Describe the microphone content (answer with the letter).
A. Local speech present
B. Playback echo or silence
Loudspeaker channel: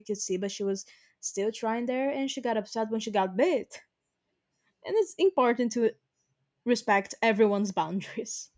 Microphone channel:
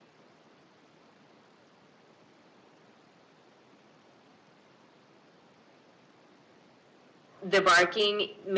A